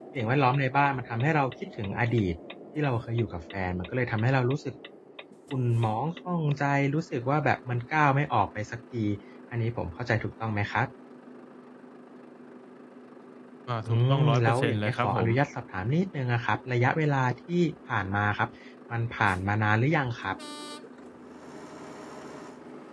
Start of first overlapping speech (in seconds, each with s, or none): 13.9 s